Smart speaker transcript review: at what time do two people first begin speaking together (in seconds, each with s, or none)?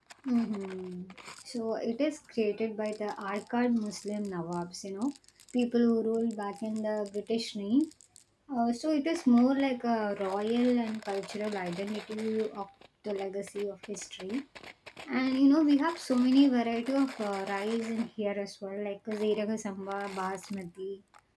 none